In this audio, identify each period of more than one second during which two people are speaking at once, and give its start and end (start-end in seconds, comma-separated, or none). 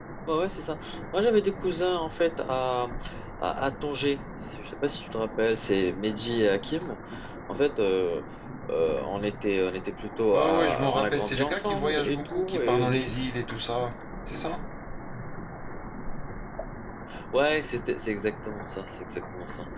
10.3-12.9